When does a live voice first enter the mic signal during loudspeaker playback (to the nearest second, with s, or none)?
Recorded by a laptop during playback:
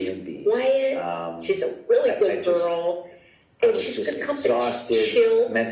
none